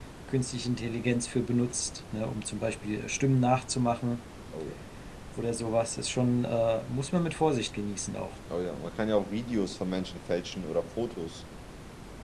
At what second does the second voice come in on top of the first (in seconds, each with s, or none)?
none